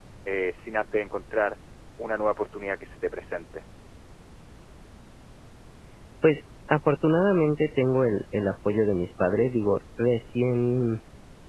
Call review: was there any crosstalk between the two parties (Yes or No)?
No